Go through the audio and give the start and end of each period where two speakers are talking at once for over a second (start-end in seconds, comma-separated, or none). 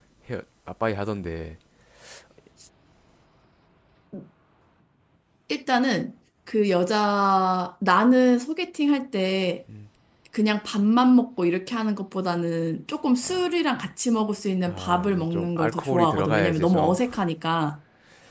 14.7-17.0